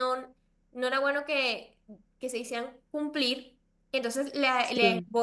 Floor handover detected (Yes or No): No